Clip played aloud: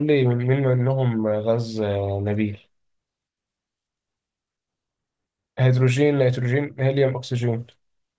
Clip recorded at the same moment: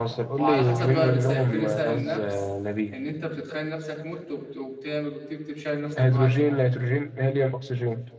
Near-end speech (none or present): present